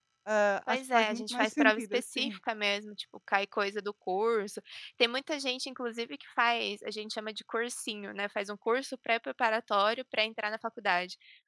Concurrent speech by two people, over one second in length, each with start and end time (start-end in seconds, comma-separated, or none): 0.7-2.4